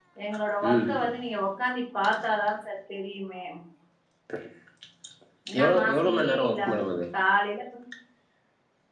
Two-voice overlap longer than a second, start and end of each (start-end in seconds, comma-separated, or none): 5.6-6.8